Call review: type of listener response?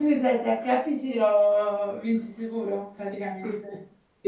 taking over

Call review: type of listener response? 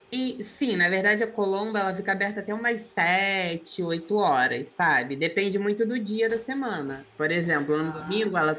listening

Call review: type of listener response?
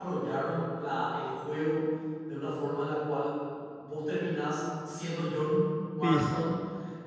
listening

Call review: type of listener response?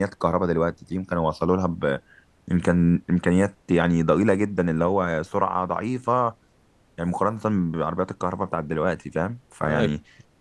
listening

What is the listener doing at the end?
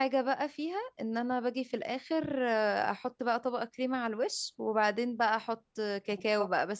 listening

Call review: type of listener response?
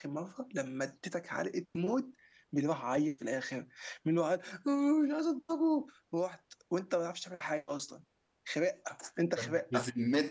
taking over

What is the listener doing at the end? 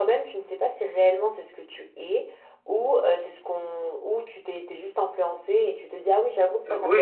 taking over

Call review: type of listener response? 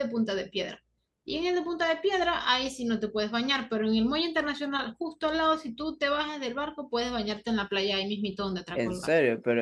taking over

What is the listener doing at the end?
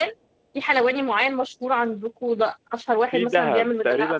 taking over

